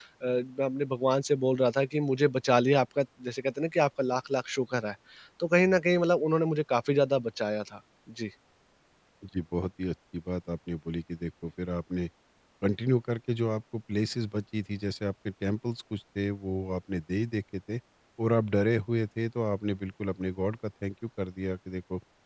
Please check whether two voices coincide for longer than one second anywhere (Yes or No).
No